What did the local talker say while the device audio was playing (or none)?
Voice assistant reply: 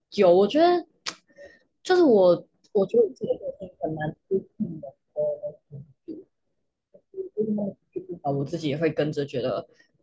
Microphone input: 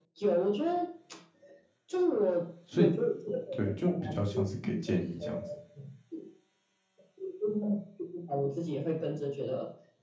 所以对，就比较像是给建议这样子，